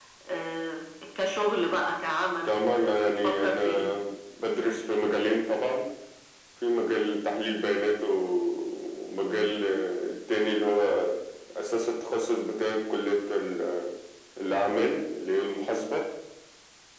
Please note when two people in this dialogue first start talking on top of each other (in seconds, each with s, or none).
2.5 s